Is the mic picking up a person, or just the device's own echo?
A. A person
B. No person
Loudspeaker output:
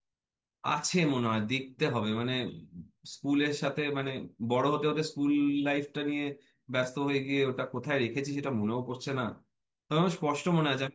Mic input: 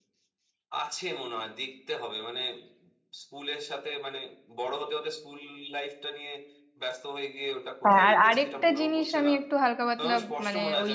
A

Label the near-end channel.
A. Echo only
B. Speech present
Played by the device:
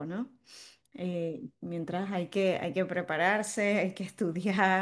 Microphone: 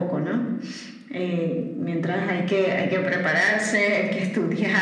A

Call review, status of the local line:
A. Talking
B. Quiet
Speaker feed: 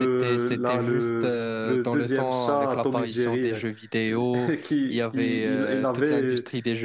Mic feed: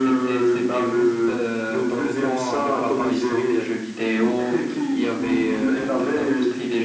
B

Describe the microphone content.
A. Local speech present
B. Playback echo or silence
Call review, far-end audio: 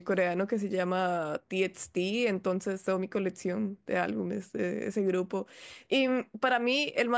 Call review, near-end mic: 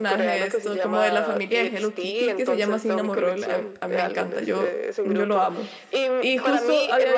A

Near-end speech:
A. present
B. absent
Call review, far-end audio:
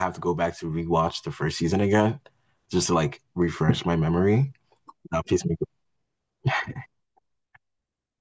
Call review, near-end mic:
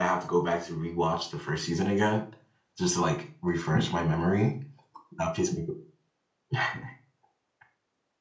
B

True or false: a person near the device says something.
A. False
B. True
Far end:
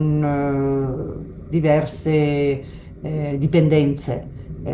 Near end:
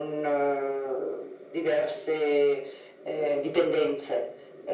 A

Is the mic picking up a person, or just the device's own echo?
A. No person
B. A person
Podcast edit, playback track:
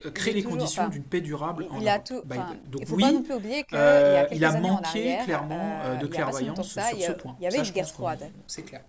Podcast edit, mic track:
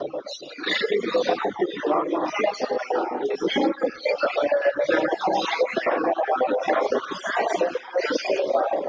A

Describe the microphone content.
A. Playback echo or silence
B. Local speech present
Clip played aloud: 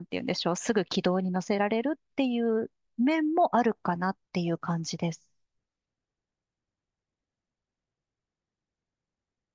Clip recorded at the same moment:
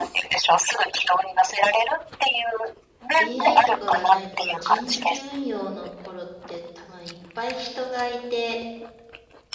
B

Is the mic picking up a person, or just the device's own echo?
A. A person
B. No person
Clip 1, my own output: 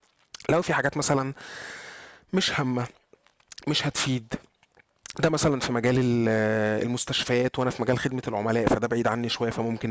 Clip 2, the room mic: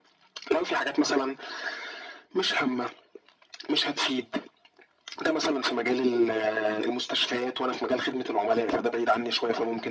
B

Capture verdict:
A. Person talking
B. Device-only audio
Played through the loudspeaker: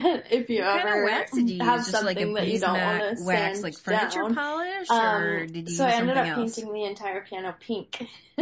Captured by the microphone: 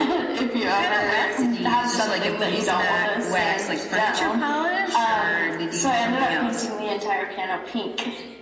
B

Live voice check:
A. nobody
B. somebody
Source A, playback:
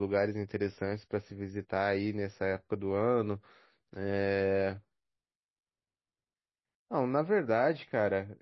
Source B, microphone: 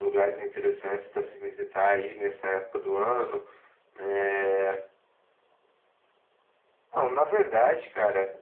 A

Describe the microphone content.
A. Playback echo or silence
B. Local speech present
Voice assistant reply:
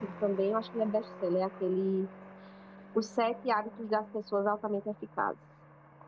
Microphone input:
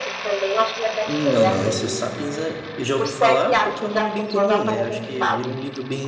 B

